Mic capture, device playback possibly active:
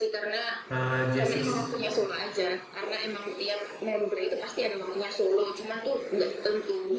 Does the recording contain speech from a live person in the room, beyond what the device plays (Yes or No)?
Yes